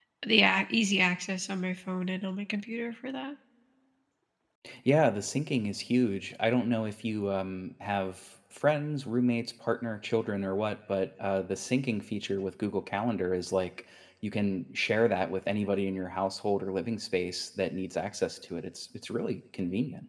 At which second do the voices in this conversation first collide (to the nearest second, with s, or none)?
none